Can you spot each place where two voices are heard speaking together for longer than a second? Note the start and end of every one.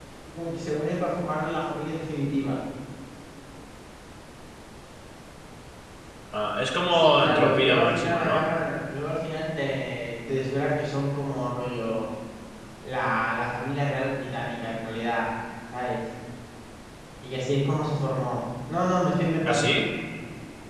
6.9-8.5

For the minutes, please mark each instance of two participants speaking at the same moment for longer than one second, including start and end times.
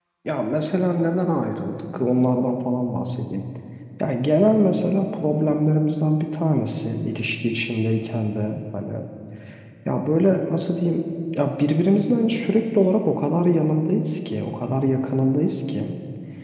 none

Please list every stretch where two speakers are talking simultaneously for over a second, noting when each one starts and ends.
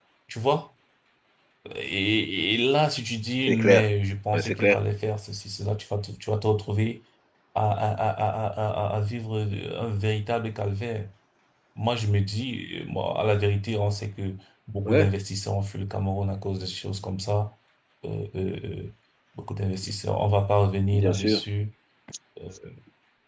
none

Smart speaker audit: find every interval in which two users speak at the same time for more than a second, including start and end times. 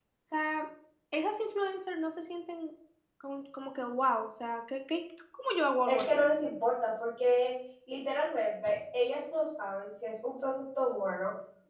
none

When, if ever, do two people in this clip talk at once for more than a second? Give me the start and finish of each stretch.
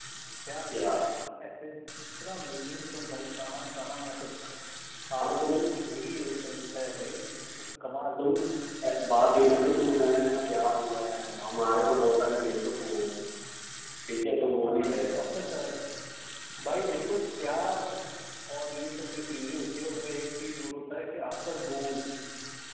none

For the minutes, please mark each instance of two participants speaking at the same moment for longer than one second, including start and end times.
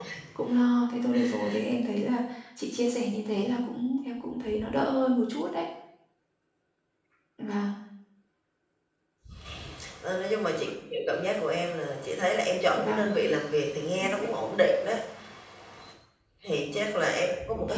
none

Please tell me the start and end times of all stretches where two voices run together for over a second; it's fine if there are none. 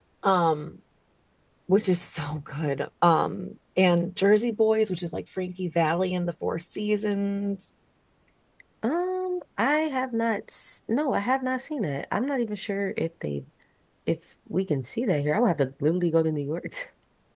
none

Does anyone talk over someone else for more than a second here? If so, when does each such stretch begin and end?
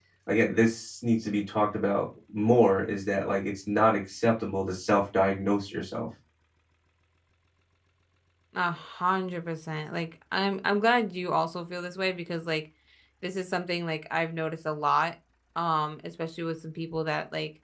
none

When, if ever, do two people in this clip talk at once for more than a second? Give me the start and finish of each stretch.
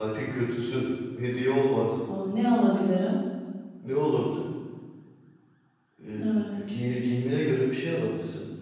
none

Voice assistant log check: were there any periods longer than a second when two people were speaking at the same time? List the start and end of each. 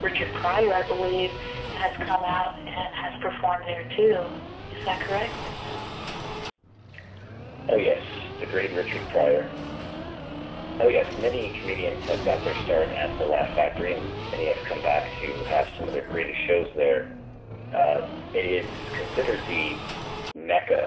none

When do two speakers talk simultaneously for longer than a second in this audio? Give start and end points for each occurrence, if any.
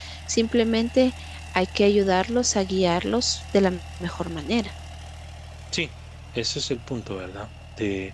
none

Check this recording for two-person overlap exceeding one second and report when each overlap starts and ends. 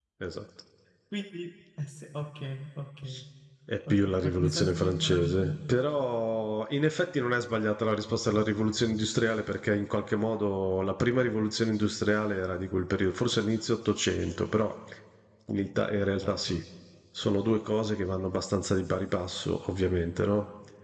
3.9-5.6

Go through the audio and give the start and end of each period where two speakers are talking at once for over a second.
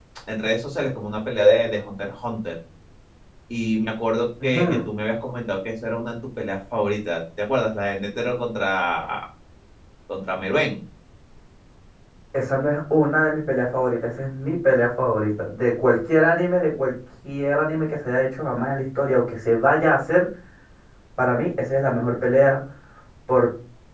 none

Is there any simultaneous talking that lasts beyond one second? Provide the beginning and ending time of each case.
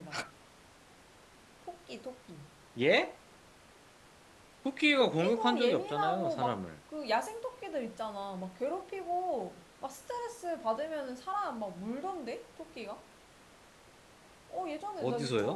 5.0-6.6

